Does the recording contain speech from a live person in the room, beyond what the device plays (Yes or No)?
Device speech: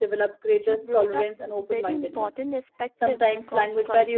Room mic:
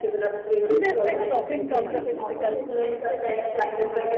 Yes